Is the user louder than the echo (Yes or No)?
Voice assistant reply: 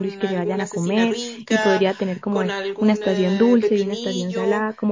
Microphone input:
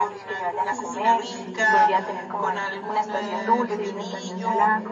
No